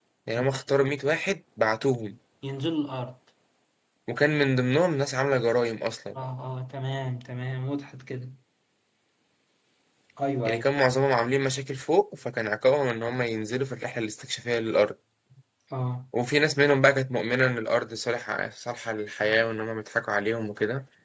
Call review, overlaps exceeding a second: none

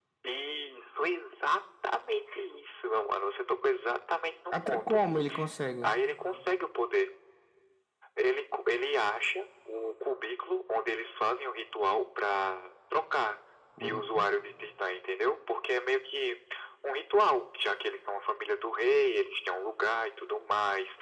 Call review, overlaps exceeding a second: none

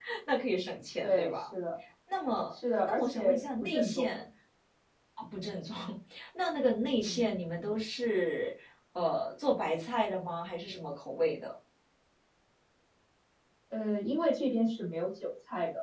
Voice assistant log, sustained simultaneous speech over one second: present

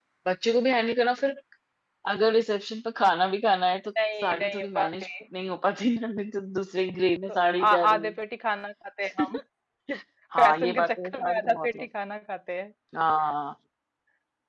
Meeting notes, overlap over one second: present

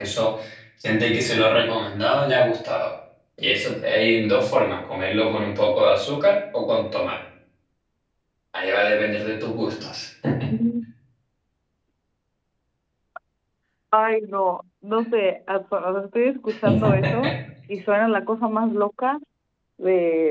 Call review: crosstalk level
none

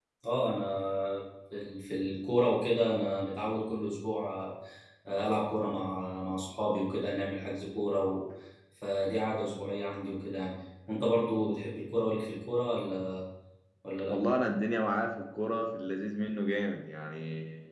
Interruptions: none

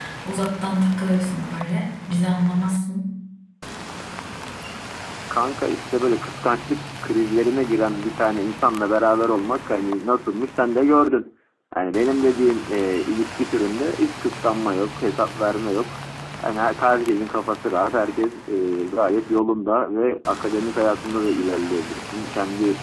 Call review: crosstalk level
none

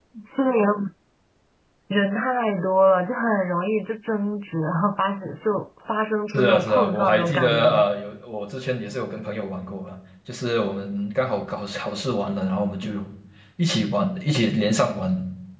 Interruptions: present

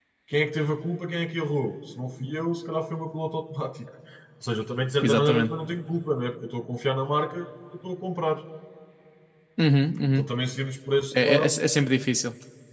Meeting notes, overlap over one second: none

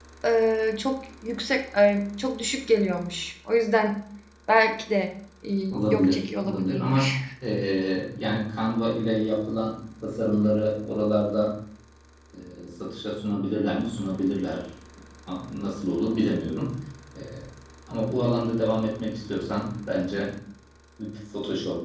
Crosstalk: present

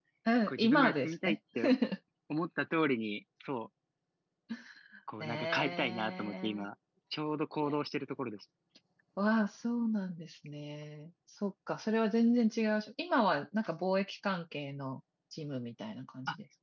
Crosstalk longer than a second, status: present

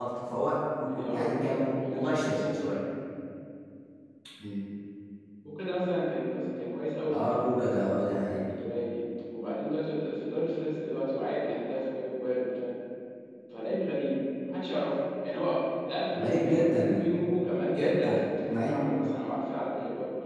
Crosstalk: present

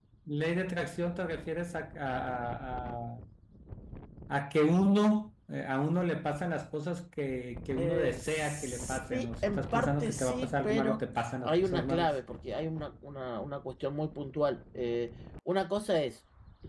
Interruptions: present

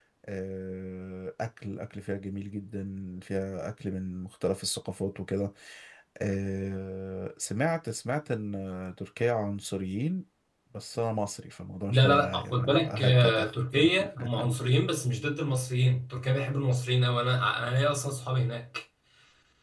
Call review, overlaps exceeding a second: present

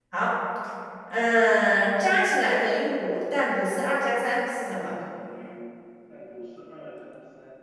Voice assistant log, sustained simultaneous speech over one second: none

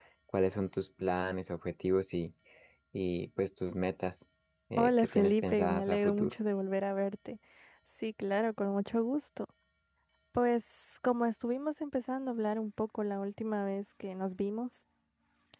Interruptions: present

